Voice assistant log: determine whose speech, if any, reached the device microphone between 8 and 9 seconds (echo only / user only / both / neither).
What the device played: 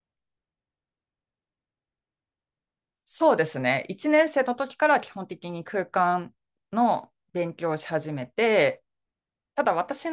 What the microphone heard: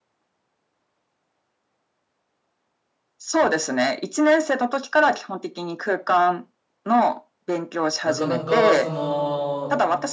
both